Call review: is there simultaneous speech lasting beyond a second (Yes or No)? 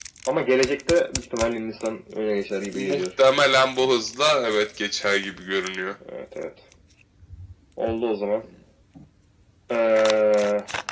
No